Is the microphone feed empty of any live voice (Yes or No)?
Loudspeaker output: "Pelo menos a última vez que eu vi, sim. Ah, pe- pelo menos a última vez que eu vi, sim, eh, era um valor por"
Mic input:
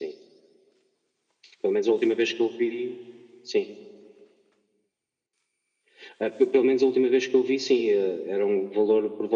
Yes